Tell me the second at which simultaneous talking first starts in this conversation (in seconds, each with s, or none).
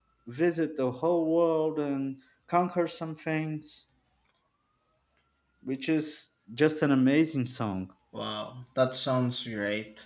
none